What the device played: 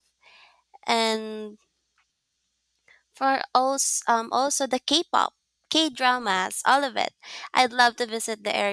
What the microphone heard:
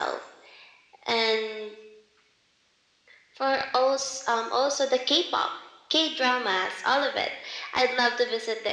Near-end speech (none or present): none